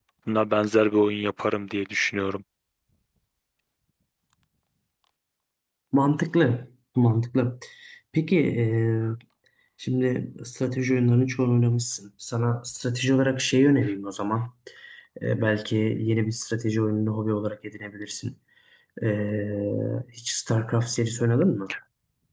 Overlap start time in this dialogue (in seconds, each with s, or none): none